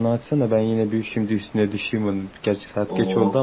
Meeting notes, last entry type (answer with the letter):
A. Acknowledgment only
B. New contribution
A